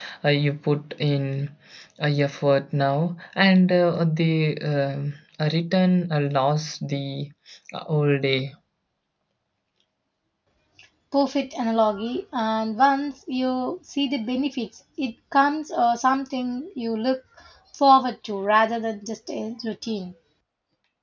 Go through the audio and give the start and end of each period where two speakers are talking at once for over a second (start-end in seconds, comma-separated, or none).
none